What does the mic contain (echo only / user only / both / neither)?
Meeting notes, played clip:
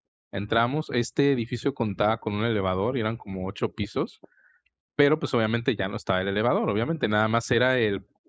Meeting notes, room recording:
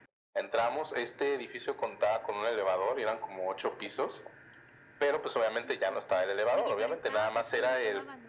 both